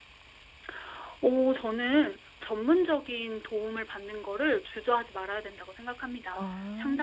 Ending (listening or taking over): listening